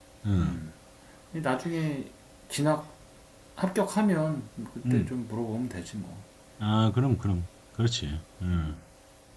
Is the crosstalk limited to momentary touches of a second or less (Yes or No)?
Yes